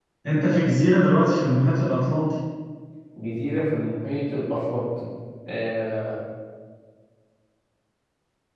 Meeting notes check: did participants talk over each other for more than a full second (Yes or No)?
No